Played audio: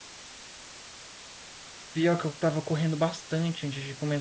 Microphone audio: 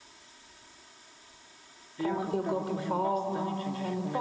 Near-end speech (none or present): present